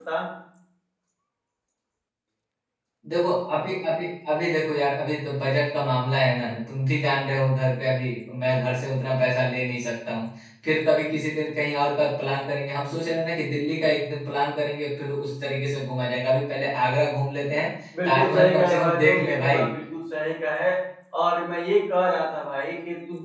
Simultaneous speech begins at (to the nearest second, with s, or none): 18 s